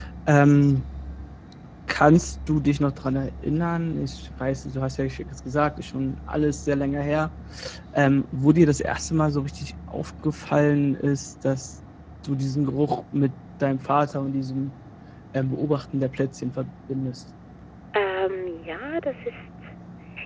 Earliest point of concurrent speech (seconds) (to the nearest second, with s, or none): none